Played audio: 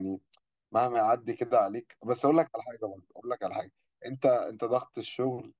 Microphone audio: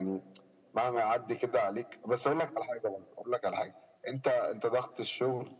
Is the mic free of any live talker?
Yes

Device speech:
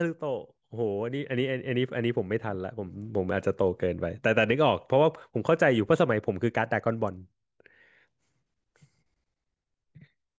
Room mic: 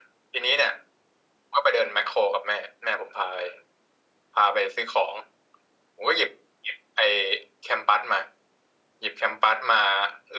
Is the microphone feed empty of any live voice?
No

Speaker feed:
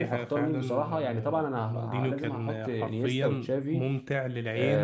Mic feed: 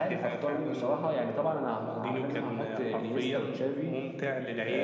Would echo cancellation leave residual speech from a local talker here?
No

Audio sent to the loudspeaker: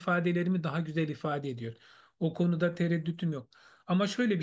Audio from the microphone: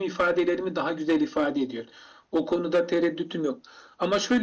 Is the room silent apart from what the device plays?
Yes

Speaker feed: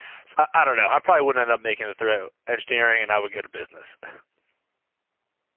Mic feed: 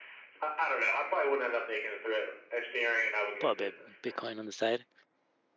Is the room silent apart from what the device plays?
No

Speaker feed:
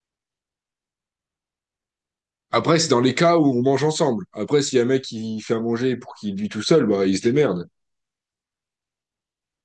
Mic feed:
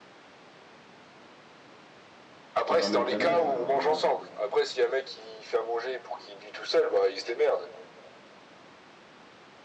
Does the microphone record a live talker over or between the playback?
Yes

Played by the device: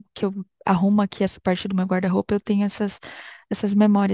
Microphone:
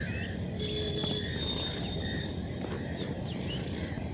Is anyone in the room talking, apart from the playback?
No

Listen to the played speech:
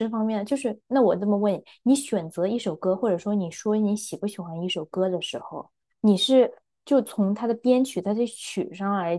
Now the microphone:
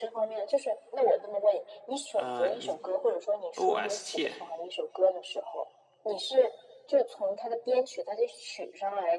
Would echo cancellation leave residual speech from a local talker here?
Yes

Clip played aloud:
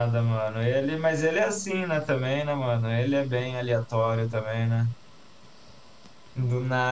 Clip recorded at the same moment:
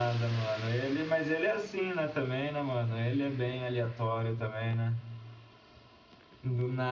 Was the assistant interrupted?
No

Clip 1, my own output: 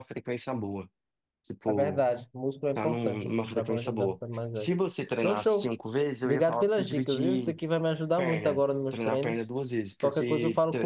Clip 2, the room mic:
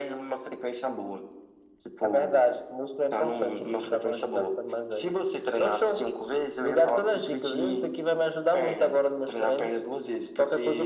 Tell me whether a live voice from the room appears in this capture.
No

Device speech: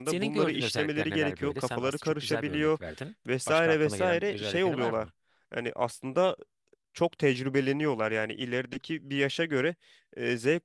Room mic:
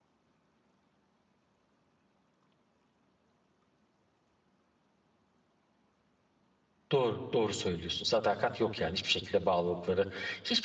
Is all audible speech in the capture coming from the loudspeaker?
No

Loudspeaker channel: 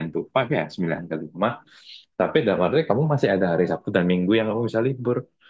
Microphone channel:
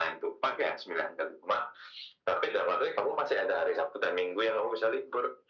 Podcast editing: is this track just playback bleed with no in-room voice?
Yes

